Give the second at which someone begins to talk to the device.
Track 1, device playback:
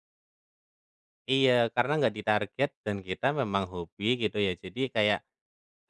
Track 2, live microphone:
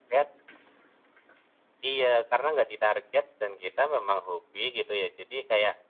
none

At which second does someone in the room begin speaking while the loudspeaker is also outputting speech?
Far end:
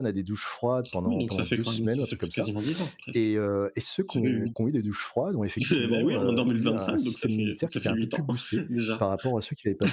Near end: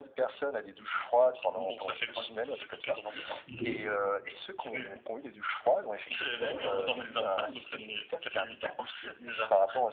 3.5 s

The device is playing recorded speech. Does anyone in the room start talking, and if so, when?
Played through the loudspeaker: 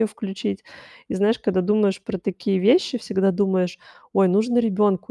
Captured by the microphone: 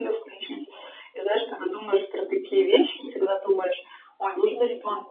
none

